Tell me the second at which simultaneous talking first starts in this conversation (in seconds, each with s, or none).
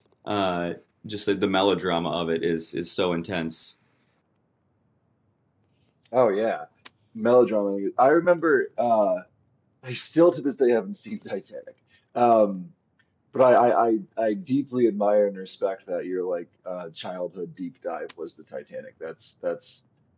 none